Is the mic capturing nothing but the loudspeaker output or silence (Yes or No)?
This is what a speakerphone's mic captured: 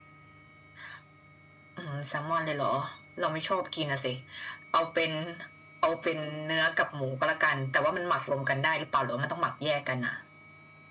Yes